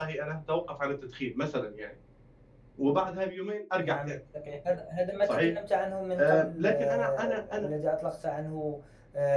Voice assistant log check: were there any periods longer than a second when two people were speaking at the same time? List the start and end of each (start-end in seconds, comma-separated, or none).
6.2-7.7